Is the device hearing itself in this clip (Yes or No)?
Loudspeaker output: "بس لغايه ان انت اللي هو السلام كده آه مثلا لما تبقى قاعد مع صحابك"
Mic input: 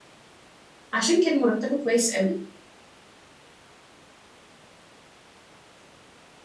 No